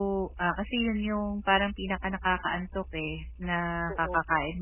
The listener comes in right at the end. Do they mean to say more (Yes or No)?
No